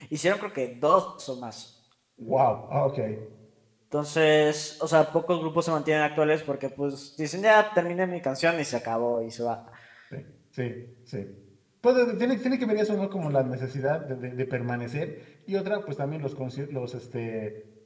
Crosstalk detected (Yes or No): No